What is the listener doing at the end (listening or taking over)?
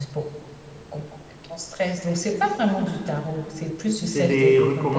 taking over